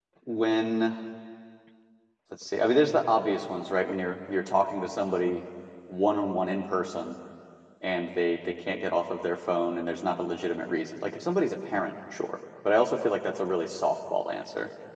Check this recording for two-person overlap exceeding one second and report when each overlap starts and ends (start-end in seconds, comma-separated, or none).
none